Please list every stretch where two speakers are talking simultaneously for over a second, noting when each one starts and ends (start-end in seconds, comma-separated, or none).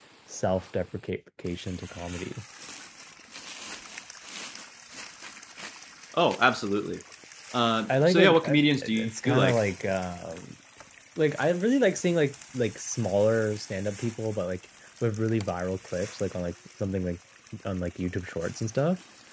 7.9-9.6